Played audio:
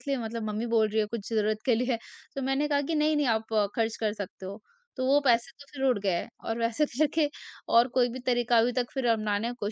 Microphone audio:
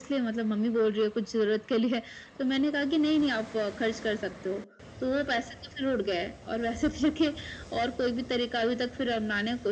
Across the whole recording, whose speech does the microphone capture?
echo only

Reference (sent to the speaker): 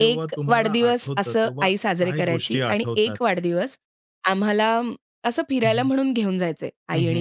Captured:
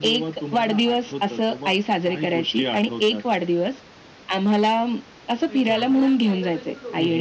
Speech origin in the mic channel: both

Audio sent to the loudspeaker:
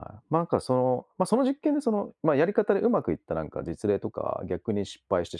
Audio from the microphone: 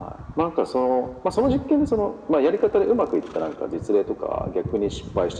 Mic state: echo only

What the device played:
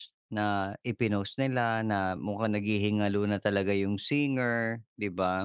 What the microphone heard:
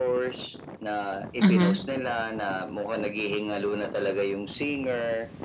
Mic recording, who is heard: both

